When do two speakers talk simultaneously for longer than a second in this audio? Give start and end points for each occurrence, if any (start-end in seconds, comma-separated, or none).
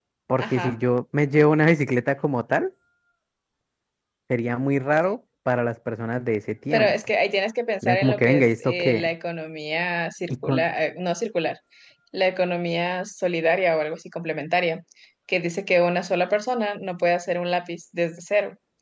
7.8-9.1